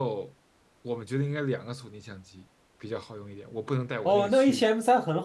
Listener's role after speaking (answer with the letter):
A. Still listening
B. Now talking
B